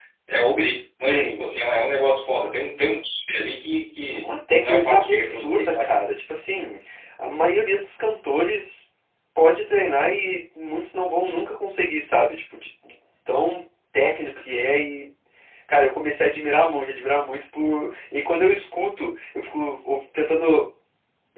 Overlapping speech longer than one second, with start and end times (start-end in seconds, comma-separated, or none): 4.1-6.0